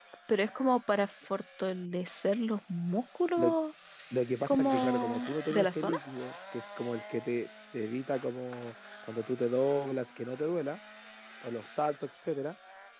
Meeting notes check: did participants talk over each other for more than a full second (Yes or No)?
Yes